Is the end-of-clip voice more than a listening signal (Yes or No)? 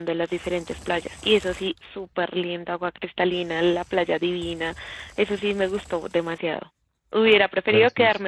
No